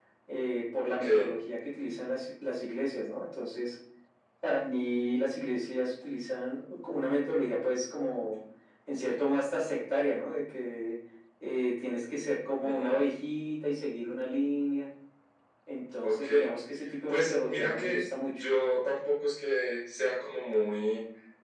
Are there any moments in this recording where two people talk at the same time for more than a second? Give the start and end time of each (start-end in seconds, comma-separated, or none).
17.1-18.4